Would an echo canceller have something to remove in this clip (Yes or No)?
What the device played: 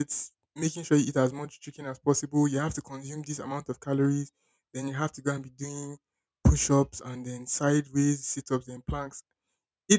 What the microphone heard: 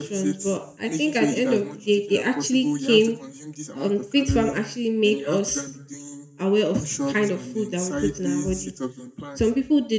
Yes